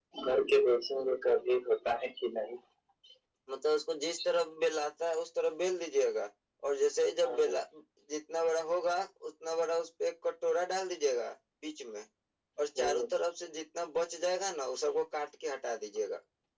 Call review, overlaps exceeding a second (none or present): none